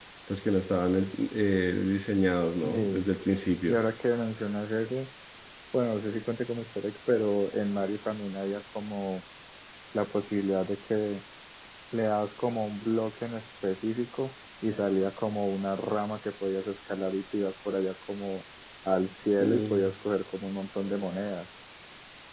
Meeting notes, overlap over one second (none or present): none